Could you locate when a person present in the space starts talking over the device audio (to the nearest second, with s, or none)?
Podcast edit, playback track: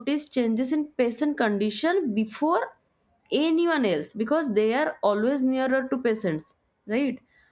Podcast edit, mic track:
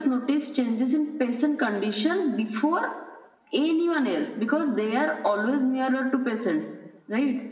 none